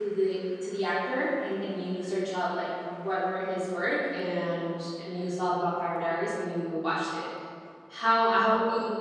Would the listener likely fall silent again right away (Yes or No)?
Yes